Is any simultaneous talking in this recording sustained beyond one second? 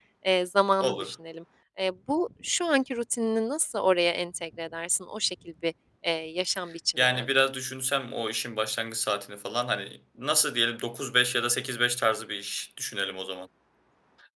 No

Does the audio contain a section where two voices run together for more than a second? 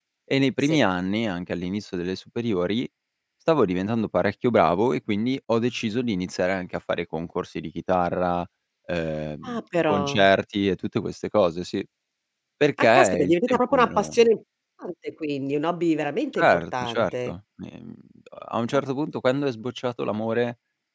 Yes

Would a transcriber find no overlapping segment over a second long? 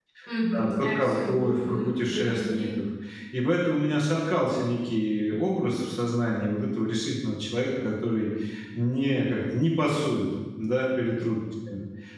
No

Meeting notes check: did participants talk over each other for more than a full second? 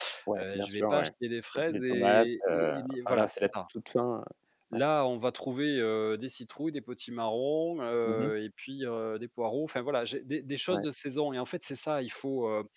Yes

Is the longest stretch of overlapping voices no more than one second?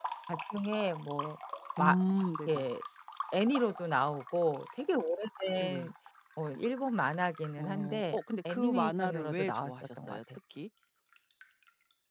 No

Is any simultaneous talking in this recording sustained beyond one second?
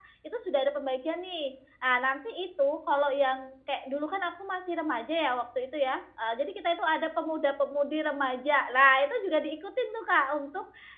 No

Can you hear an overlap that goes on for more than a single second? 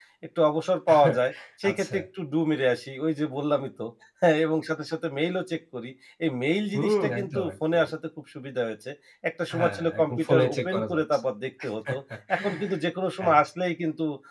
Yes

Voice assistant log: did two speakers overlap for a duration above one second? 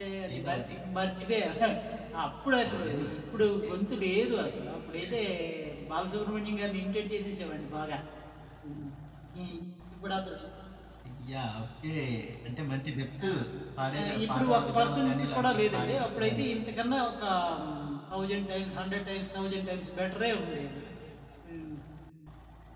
Yes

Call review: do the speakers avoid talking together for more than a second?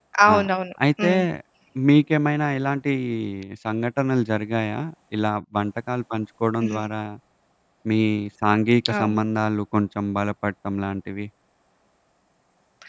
Yes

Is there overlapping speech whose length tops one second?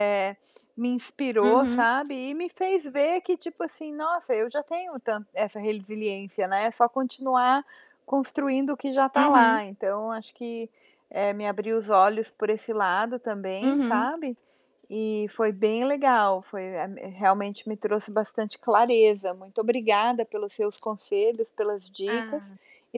No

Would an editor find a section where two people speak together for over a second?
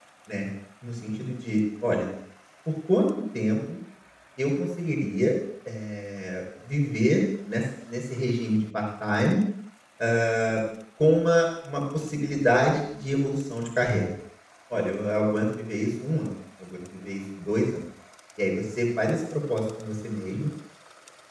No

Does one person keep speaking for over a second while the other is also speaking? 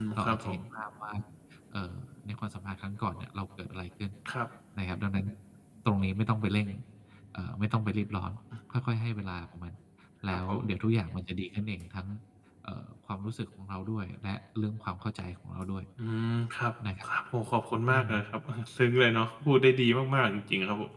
No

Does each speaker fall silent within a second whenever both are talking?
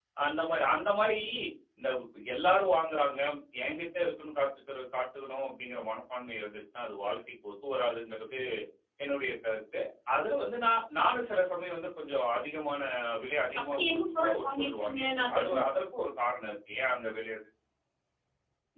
No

